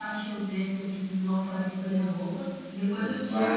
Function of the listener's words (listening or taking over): taking over